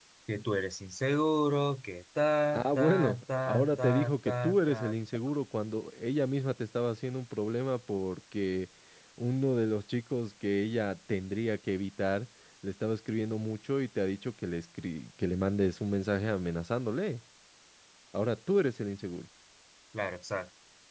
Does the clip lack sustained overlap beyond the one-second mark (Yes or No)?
No